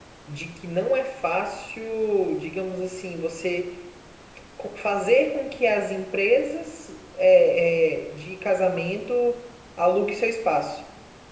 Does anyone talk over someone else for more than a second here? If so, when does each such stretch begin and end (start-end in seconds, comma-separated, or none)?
none